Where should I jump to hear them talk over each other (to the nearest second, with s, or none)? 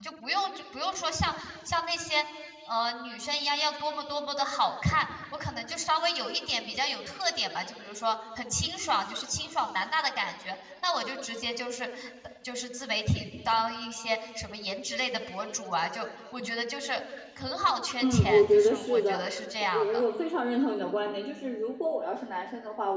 18 s